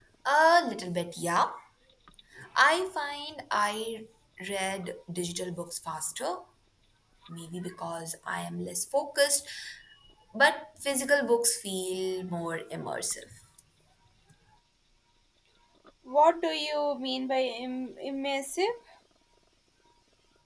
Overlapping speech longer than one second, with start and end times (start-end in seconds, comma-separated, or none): none